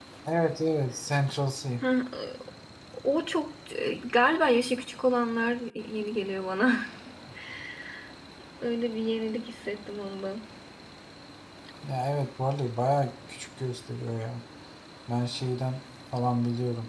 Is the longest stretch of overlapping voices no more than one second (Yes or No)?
Yes